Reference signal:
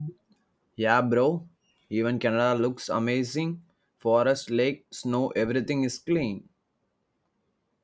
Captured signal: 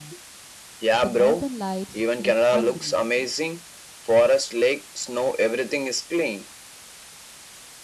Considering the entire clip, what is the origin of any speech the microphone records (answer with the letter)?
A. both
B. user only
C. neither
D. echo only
A